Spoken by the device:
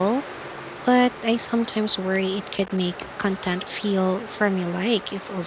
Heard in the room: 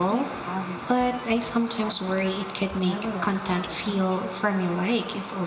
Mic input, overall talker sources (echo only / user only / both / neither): both